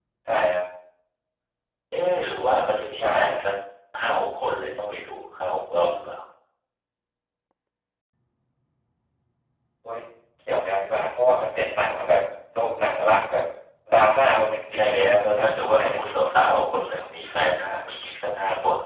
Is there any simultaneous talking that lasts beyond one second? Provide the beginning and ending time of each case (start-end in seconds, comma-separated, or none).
14.7-16.1